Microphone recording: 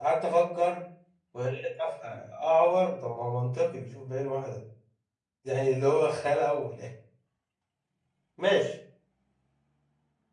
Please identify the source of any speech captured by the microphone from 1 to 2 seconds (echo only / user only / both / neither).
user only